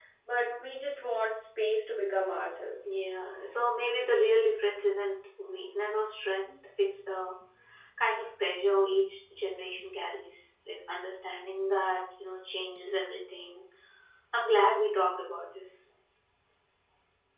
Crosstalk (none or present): none